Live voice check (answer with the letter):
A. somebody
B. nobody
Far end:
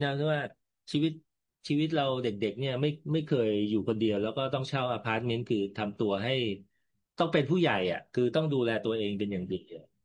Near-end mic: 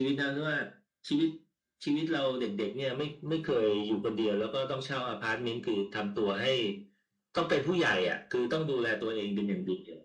B